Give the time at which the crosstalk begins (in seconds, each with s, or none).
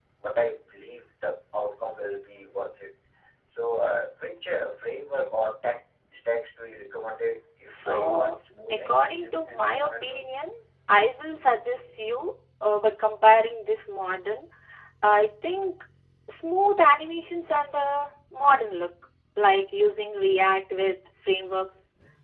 7.7 s